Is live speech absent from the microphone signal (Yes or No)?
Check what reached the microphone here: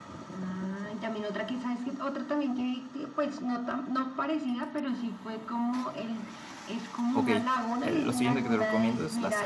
No